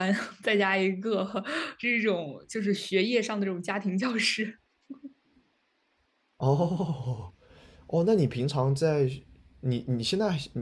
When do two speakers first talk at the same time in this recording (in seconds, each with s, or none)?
none